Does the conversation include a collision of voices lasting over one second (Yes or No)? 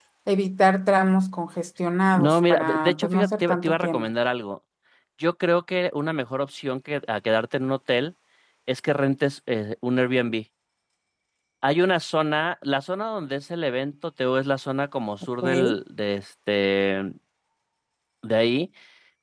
Yes